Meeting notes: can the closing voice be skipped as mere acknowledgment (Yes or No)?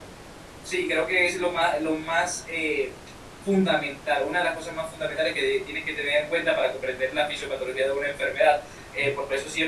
Yes